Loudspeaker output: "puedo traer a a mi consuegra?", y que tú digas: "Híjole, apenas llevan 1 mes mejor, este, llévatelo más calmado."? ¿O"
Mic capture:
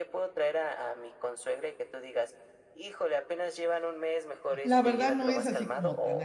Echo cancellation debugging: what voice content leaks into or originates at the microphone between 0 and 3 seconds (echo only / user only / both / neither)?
echo only